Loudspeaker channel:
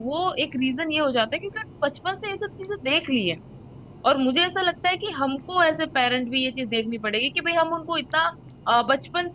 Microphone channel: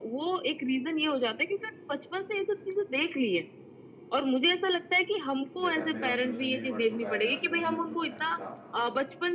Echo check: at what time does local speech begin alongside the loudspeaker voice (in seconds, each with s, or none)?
5.6 s